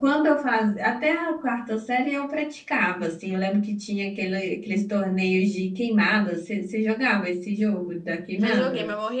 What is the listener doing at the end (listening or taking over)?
taking over